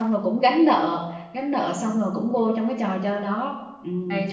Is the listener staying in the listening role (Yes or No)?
Yes